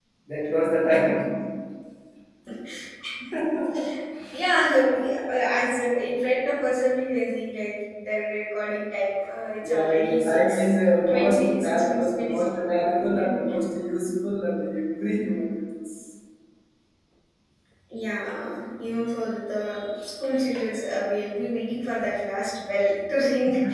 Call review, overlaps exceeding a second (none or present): present